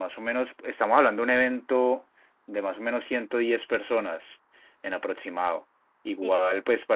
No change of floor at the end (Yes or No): Yes